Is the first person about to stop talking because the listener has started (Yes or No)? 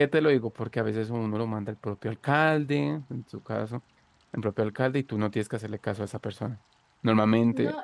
Yes